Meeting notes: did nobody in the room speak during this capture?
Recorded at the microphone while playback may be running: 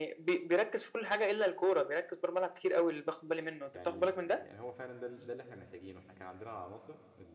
No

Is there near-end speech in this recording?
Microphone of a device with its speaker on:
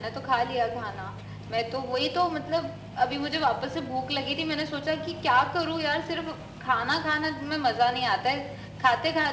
No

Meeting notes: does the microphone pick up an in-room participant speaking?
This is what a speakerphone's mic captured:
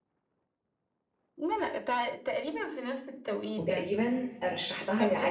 Yes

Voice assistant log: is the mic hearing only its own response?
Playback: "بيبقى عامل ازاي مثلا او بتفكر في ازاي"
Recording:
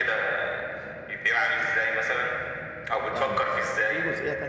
No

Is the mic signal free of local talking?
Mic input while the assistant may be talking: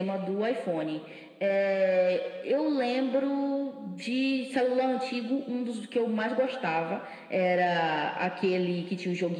Yes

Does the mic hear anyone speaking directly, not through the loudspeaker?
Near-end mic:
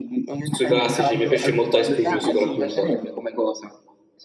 Yes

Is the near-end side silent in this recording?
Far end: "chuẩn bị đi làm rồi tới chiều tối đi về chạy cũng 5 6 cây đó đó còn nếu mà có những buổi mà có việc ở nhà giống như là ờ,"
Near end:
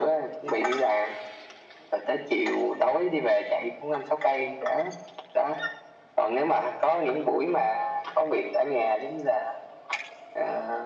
Yes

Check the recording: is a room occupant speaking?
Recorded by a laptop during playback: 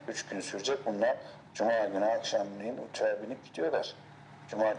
No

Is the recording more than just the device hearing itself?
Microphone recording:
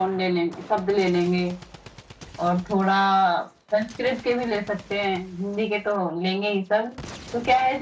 No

